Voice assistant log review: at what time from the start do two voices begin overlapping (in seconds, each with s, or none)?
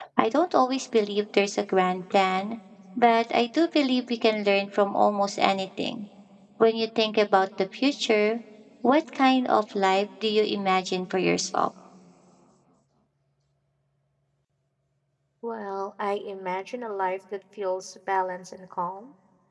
none